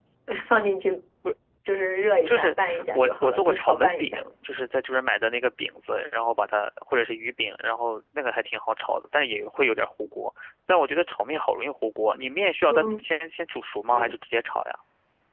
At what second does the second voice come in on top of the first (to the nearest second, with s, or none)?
2 s